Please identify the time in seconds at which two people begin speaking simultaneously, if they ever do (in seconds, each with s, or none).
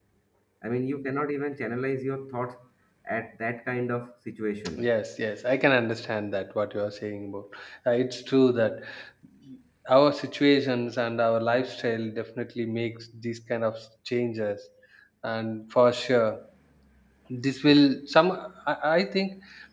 none